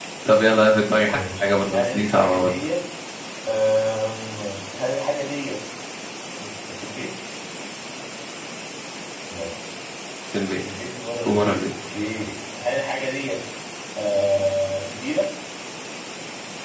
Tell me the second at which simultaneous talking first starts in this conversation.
1.0 s

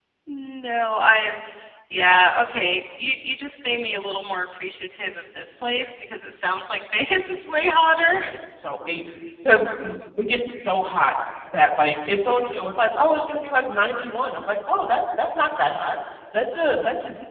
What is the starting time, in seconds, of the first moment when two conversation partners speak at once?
none

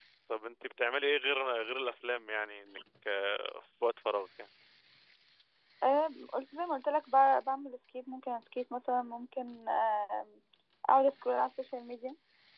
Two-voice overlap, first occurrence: none

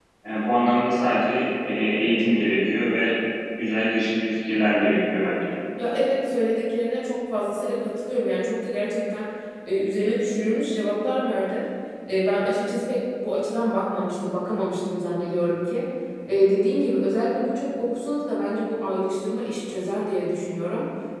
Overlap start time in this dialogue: none

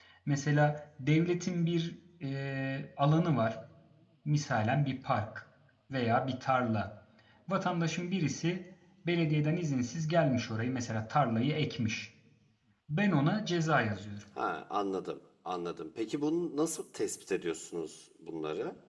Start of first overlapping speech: none

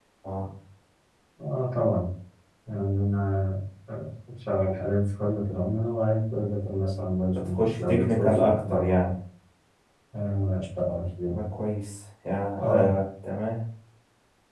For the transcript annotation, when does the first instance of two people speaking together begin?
7.4 s

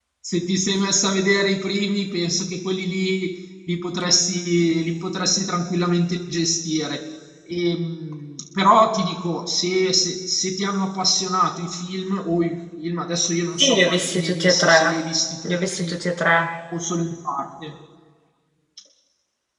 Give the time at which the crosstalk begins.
13.6 s

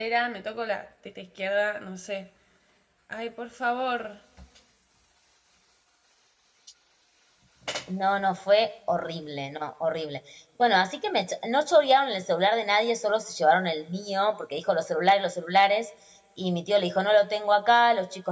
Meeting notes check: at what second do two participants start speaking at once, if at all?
none

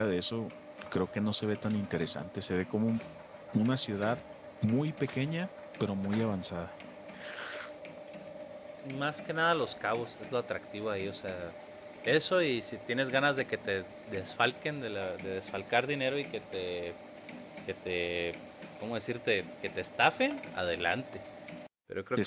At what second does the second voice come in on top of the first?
none

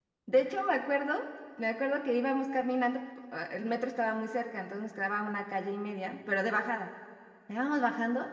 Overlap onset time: none

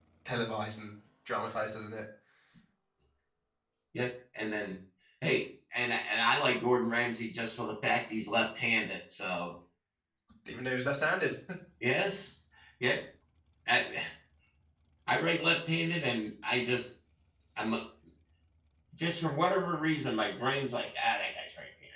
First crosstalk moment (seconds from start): none

